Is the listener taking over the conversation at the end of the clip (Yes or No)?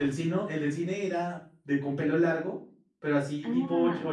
No